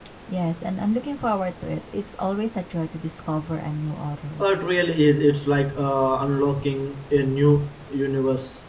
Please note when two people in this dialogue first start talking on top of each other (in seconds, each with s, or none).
none